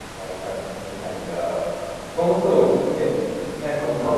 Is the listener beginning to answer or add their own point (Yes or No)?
Yes